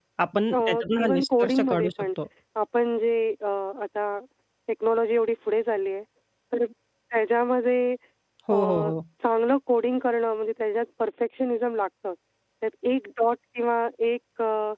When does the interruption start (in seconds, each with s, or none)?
0.5 s